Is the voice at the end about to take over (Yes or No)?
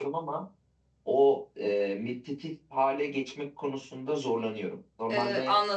Yes